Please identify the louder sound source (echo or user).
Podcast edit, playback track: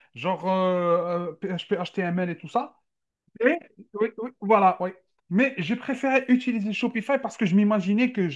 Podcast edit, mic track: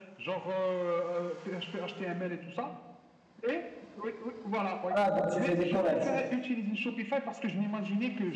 user